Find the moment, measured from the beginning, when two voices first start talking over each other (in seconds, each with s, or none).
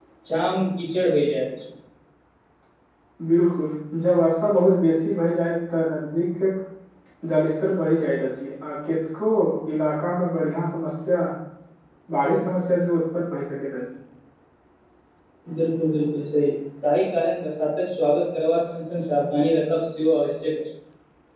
none